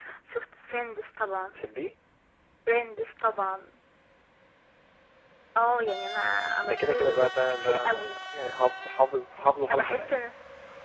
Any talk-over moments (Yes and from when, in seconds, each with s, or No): Yes, from 6.6 s